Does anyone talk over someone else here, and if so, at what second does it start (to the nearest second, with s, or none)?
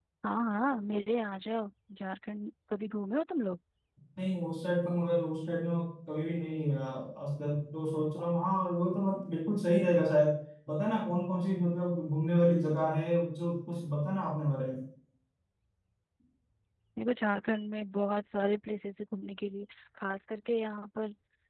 none